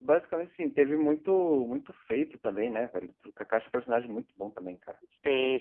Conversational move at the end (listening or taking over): taking over